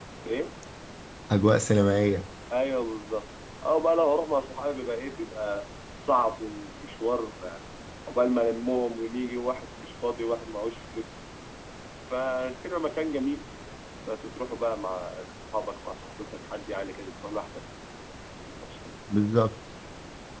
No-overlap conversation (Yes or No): Yes